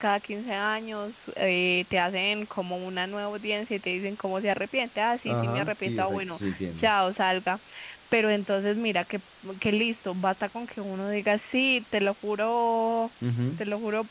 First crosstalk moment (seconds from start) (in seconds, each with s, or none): 5.3 s